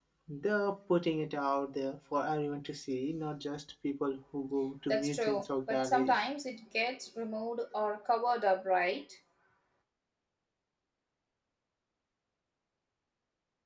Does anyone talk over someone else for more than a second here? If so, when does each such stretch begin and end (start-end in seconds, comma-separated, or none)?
4.9-6.1